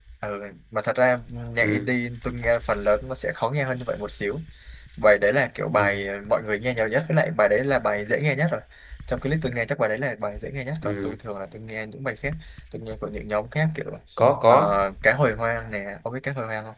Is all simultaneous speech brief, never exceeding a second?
Yes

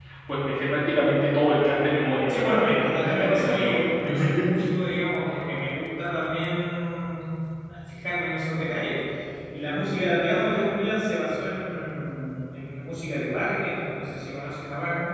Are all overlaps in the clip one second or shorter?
No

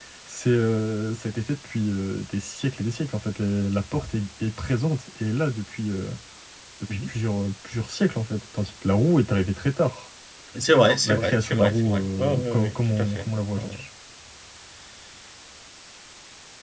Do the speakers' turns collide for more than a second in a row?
Yes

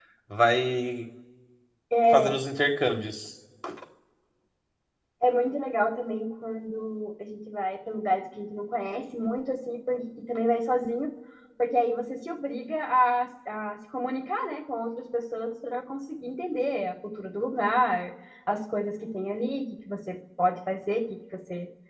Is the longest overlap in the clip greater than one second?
No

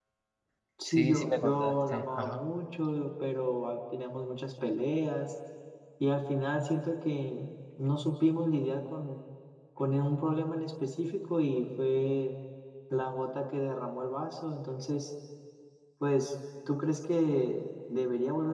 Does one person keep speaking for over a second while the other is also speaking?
Yes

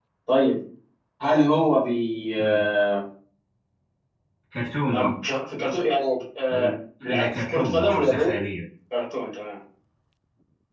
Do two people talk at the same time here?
Yes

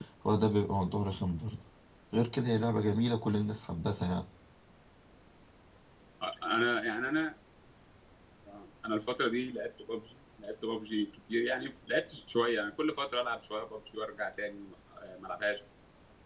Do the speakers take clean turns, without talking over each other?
Yes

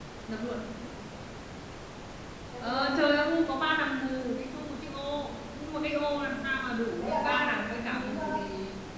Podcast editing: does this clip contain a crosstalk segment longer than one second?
Yes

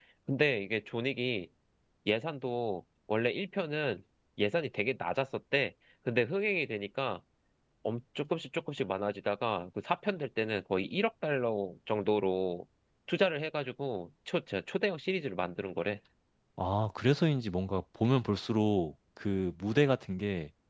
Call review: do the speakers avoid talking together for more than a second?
Yes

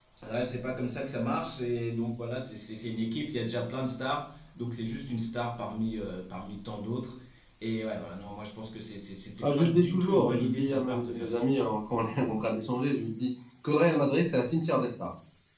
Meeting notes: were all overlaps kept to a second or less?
No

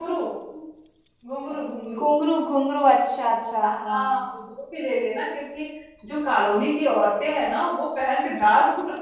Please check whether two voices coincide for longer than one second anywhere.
No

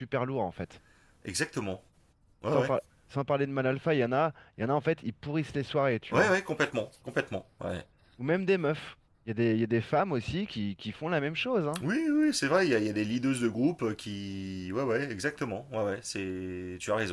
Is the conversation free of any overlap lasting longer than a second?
Yes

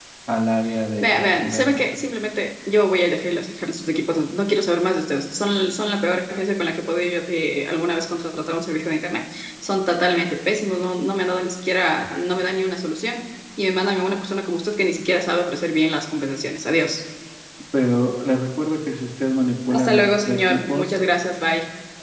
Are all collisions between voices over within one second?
No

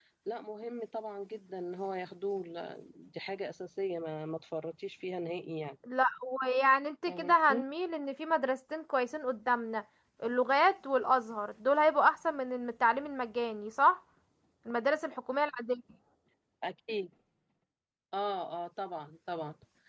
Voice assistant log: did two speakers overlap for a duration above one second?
No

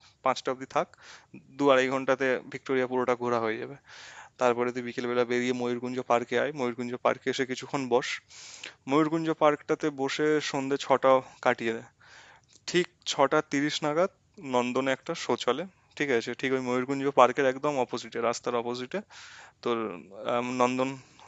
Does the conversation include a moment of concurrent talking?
No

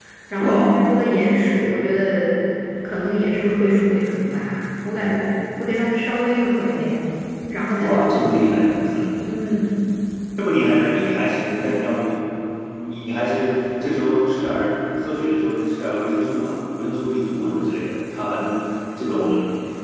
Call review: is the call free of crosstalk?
No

